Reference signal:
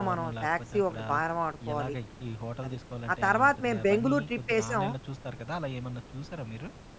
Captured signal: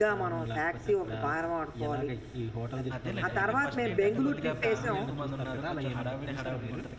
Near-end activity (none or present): present